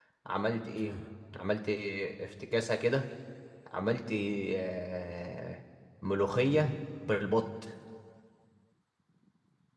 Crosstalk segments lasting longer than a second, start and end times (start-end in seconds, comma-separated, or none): none